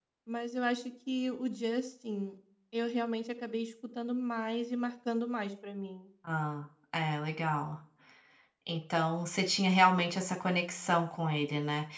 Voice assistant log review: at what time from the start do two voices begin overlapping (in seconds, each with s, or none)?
none